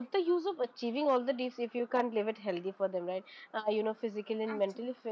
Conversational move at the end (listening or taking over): listening